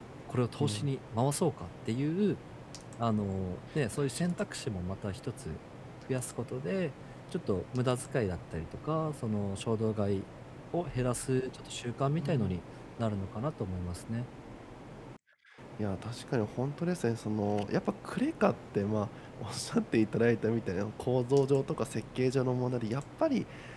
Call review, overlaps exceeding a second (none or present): none